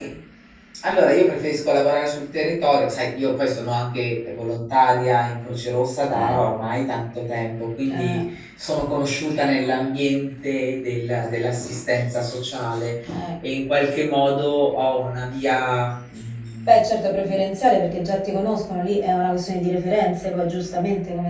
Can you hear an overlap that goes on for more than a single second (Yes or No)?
No